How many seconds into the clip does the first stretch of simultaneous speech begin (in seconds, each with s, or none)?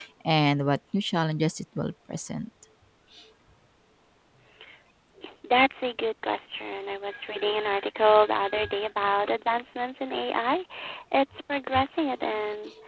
none